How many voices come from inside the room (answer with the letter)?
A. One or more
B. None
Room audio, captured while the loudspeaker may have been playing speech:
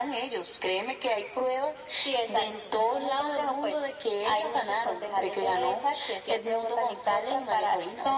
B